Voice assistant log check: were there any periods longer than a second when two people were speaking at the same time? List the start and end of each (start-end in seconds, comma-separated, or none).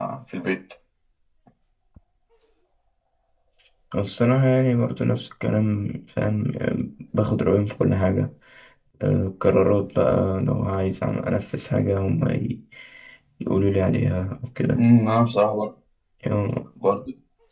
none